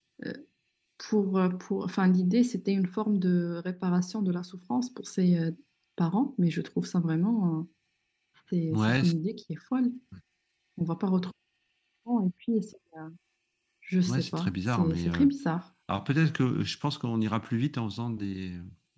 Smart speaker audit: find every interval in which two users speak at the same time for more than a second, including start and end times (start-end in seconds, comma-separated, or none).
14.1-15.3